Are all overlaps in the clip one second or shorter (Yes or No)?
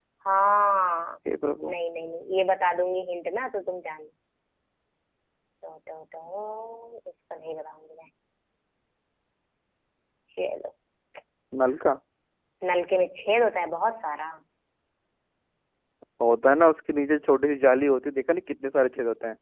Yes